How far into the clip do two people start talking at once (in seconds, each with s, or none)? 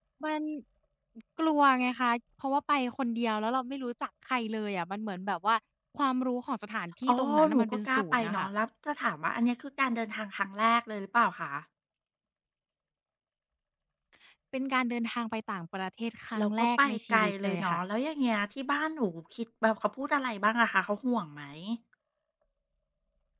7.1 s